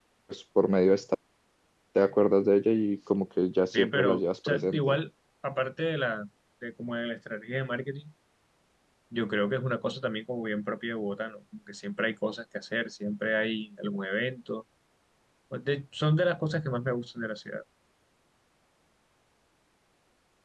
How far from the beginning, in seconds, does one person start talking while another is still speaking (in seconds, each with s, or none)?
3.7 s